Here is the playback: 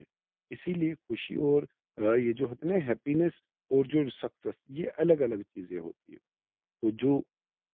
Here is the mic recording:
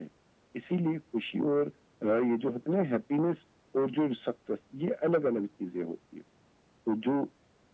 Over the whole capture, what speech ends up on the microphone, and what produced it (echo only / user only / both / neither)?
echo only